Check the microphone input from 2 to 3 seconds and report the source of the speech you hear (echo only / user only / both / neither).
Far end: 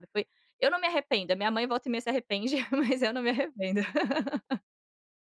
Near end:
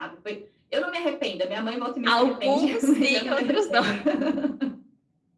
both